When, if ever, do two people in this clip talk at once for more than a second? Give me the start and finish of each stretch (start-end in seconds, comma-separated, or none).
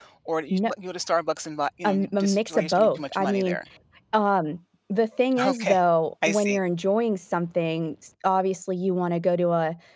1.8-3.6